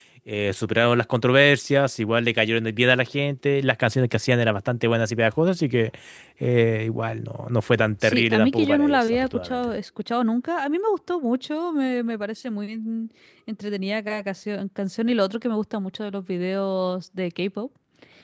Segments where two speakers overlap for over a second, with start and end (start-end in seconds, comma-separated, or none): 8.0-9.6